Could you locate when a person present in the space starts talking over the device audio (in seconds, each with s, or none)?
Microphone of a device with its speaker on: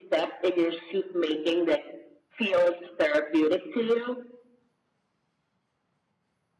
none